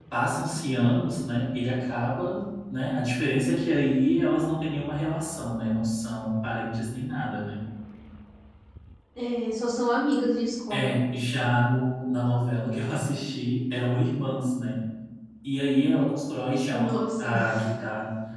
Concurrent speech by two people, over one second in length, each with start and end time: none

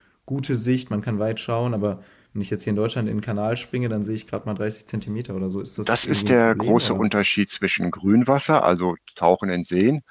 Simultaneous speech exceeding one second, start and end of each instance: 5.8-7.1

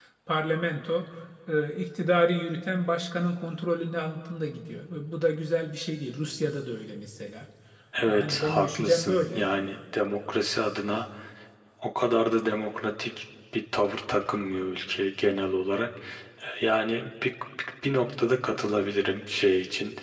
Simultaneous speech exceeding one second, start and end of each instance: 8.1-9.4

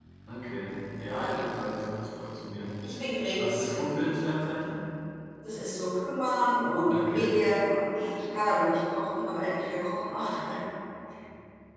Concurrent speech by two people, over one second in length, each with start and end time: none

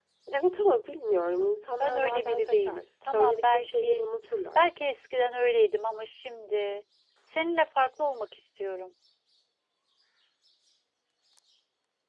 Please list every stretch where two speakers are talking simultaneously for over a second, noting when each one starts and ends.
1.8-4.0

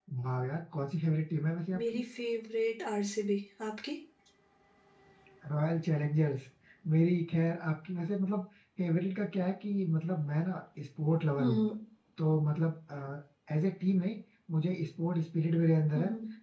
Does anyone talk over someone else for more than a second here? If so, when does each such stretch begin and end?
none

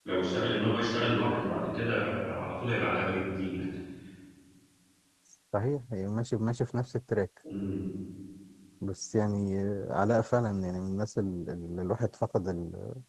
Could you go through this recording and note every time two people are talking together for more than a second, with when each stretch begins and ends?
none

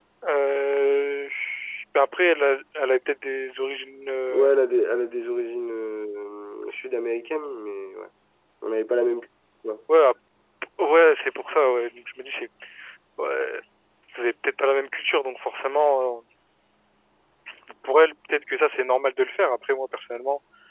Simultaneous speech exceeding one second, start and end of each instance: none

